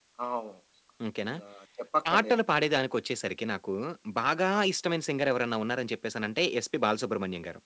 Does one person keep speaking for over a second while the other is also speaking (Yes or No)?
No